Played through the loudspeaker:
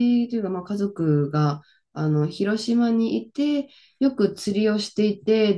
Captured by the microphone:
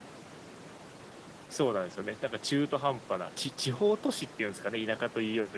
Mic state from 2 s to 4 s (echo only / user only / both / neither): user only